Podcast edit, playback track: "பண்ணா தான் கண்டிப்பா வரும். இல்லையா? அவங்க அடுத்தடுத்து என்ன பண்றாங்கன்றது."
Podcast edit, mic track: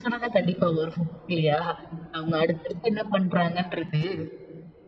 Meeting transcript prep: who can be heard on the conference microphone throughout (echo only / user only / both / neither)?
echo only